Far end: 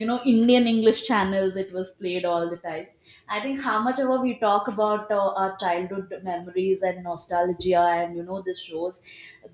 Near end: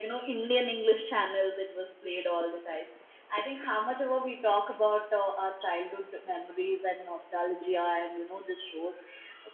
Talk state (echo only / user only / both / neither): echo only